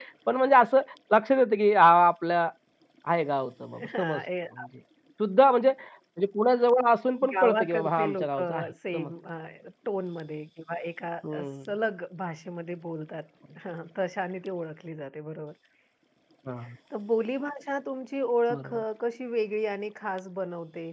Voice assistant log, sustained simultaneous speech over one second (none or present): present